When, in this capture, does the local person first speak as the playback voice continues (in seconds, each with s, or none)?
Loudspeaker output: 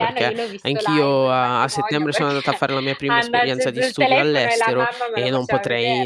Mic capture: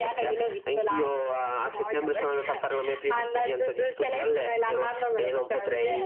none